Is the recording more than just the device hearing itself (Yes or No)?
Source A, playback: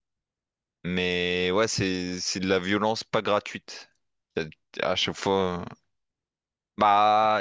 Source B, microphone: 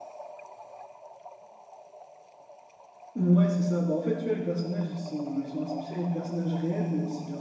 Yes